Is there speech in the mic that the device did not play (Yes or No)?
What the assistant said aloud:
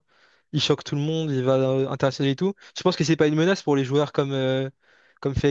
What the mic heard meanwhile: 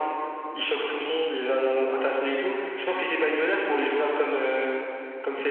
No